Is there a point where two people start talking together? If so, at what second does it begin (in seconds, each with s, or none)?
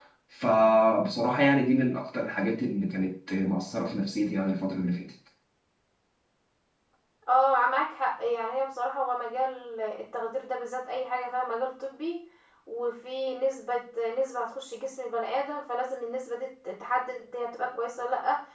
none